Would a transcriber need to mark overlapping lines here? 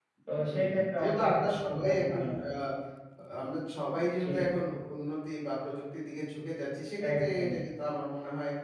Yes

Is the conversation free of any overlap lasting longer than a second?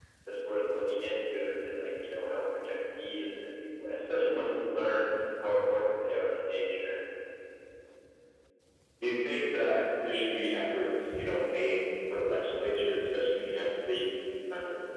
Yes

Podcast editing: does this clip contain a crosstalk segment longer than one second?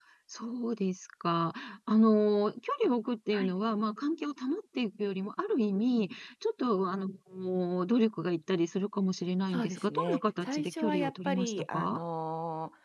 Yes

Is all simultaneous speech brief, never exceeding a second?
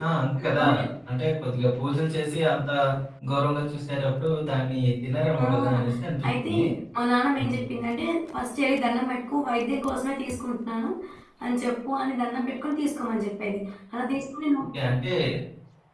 Yes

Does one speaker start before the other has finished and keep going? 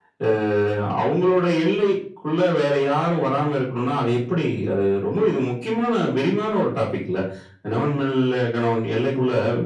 No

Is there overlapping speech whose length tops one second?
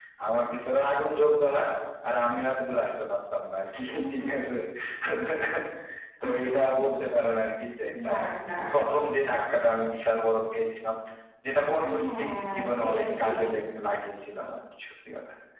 Yes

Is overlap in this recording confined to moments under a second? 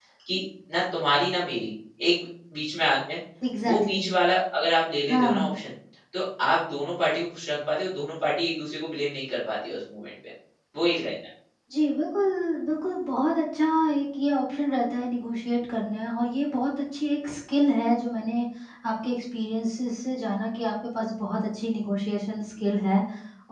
Yes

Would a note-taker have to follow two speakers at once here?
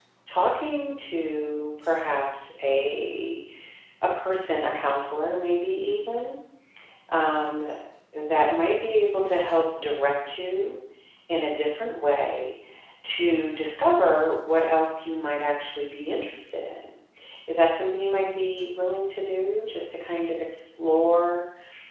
No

